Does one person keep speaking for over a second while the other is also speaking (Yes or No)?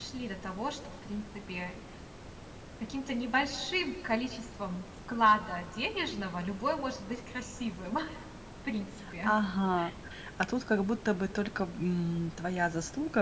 No